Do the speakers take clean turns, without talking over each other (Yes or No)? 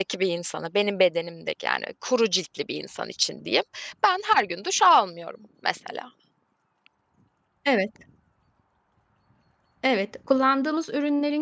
Yes